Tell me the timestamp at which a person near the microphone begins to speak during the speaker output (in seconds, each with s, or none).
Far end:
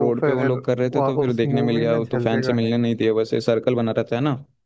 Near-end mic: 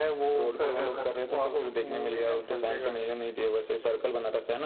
0.6 s